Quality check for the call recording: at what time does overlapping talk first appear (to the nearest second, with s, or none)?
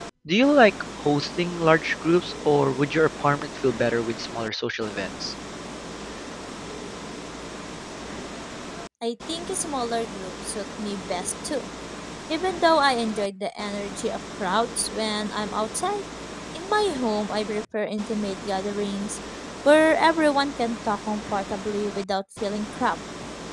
none